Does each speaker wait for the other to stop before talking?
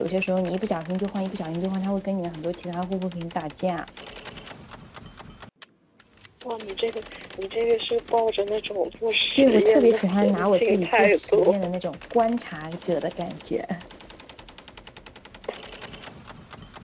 No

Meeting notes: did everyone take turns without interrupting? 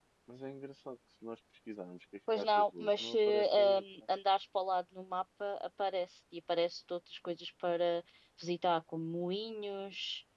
No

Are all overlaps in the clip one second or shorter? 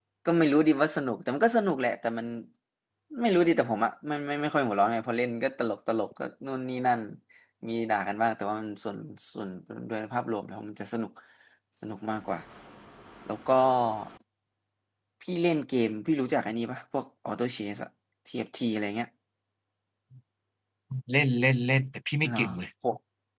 Yes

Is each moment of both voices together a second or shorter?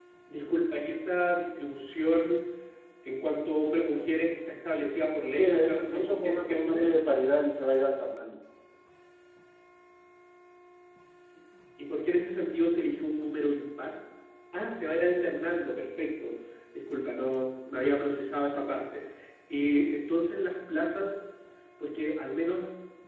No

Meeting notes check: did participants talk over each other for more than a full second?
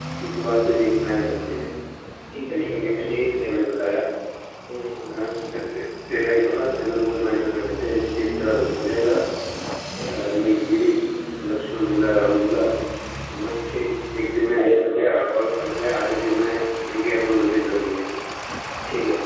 Yes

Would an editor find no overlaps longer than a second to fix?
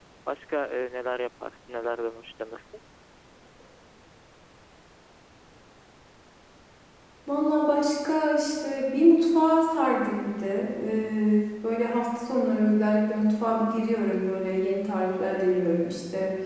Yes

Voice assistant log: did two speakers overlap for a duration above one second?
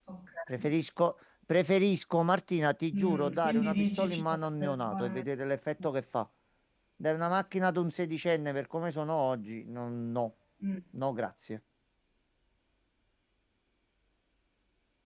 Yes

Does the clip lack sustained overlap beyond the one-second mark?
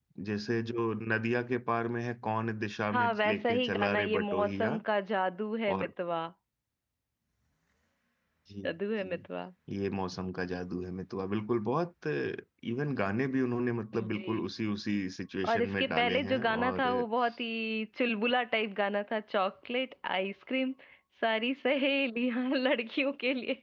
No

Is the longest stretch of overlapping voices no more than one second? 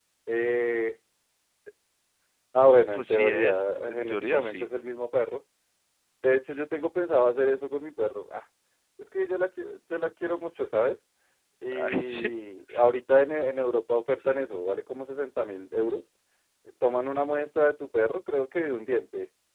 No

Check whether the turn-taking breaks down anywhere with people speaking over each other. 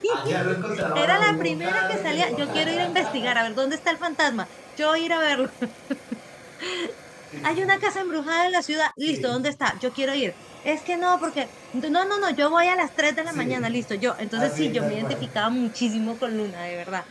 Yes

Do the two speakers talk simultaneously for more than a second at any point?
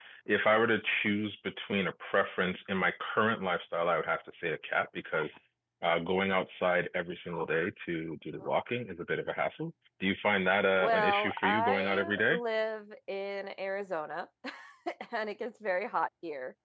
Yes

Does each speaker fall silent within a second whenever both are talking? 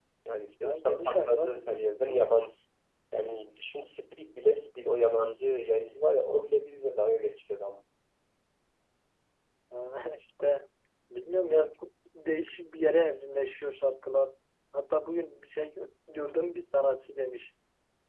No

